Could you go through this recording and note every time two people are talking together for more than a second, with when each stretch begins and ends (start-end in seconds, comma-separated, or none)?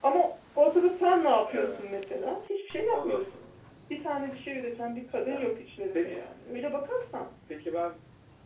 none